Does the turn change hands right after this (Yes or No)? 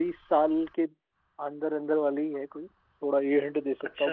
No